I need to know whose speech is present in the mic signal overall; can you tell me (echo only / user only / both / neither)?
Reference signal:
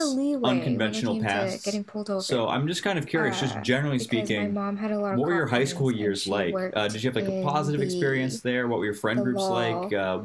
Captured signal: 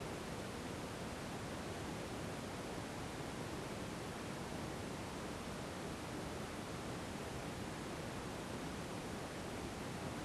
neither